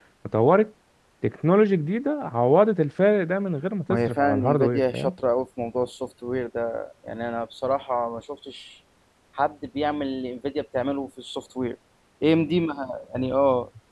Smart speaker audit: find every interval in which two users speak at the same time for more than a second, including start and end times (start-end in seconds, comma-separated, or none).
3.9-5.1